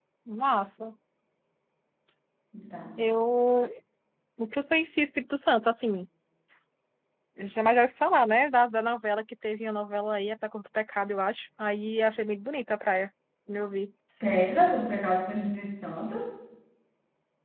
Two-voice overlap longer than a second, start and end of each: none

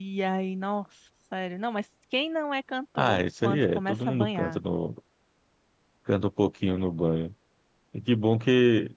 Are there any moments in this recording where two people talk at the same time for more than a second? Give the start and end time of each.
3.0-4.6

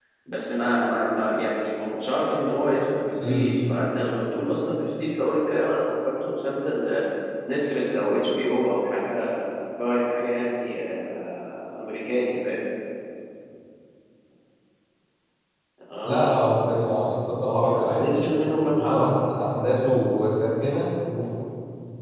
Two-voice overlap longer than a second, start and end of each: none

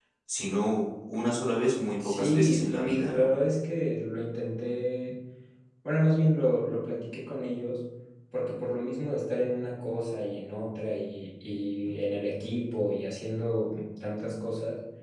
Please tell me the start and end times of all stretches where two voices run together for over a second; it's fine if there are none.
2.0-3.3

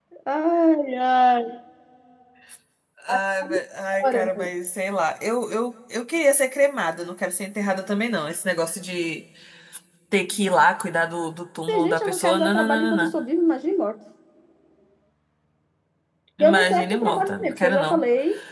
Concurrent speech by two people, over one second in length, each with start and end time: 11.6-13.1, 16.4-18.0

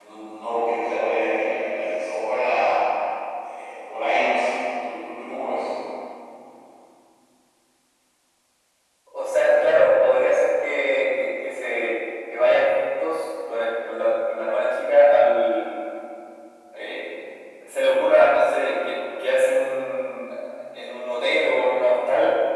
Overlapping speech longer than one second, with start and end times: none

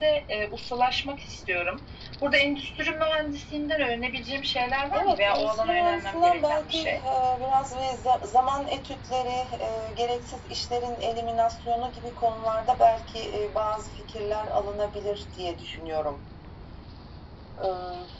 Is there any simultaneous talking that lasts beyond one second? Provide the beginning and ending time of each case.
4.9-7.0

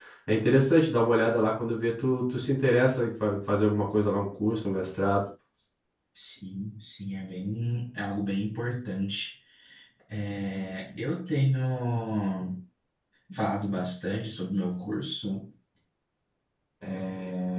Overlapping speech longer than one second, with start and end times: none

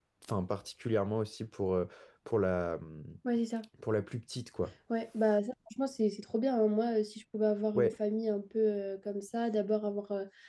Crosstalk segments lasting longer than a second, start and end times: none

